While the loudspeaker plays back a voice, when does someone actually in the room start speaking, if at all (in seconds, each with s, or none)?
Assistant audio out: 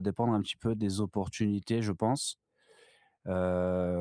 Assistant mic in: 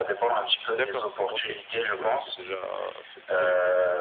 0.7 s